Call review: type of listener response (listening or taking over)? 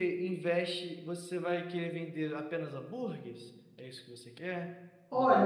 taking over